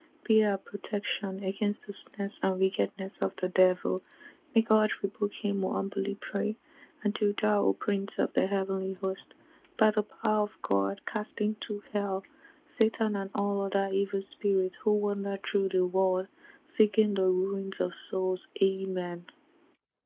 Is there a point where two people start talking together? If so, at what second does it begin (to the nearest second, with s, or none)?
none